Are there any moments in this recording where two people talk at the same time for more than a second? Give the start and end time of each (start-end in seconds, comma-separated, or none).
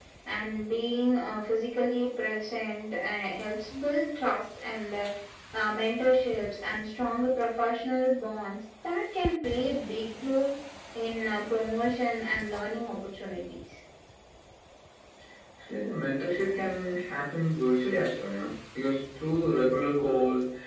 none